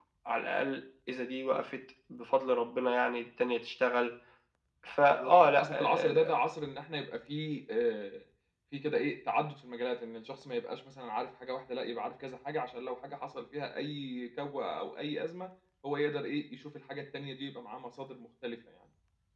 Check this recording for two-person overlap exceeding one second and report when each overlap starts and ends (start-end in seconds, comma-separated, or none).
5.1-6.3